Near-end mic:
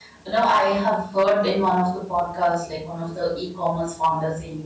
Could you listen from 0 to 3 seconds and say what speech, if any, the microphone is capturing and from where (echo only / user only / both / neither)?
user only